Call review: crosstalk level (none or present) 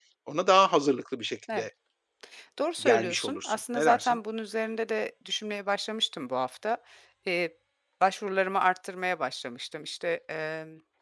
present